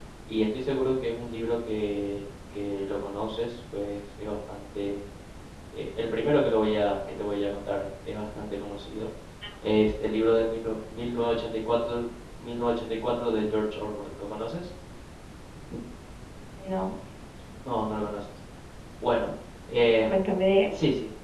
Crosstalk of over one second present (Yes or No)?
No